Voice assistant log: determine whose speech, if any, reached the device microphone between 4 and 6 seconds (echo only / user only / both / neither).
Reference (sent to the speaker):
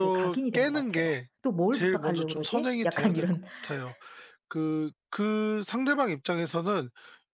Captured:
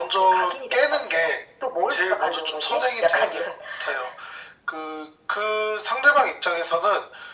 echo only